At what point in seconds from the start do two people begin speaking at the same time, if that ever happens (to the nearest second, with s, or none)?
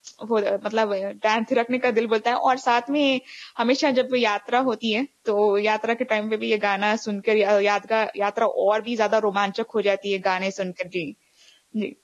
none